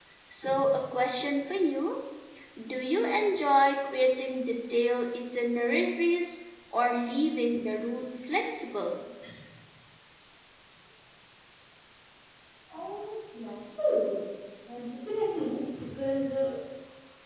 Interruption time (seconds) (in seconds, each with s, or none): none